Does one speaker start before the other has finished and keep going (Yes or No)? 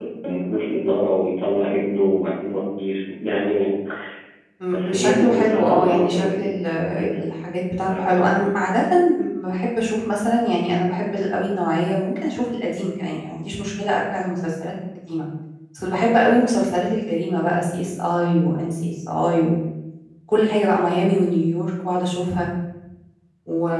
Yes